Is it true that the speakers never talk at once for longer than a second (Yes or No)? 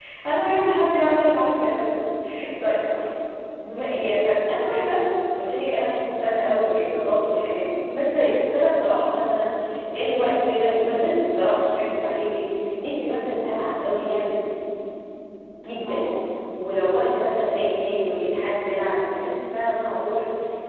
Yes